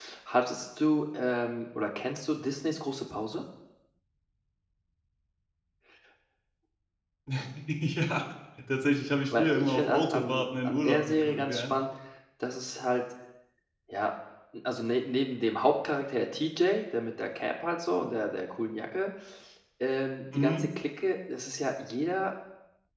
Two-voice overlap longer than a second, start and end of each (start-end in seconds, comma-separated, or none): 9.3-11.7